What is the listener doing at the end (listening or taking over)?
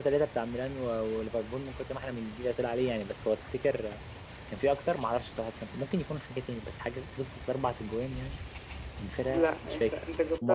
taking over